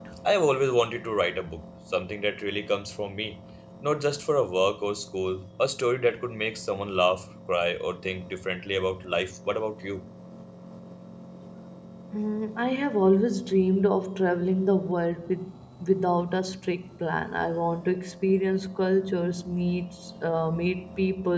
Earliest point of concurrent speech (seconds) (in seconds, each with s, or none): none